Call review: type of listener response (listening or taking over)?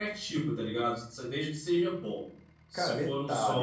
taking over